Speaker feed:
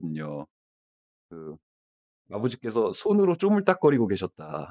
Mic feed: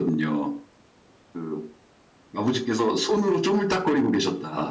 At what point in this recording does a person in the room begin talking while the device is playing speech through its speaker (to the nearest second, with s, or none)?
none